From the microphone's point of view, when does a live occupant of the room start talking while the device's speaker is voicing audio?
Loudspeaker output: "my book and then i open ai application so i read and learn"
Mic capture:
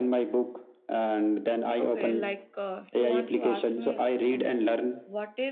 1.8 s

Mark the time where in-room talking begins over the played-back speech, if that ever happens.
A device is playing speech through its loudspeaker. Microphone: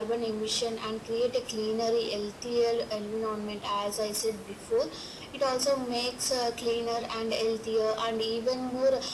none

